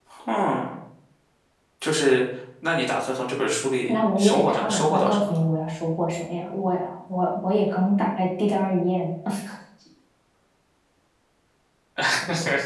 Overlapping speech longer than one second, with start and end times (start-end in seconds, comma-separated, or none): 3.9-5.4